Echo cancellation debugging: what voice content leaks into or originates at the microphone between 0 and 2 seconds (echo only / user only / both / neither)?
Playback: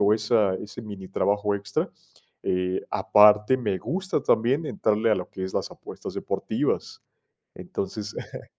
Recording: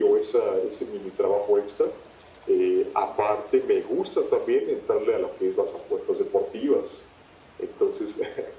echo only